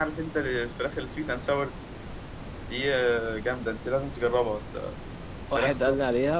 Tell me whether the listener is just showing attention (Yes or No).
No